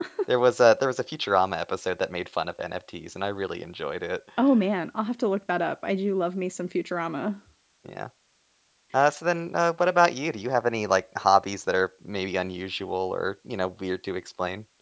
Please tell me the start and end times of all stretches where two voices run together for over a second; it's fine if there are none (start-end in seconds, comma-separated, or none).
none